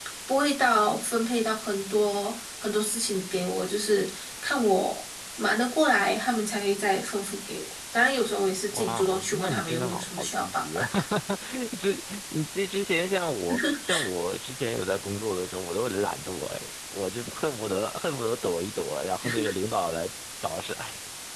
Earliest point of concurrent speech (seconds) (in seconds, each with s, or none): 8.7 s